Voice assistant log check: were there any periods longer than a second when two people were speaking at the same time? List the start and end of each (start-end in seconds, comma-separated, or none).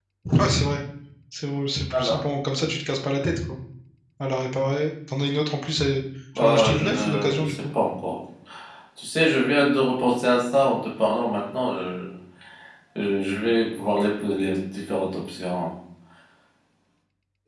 6.4-7.6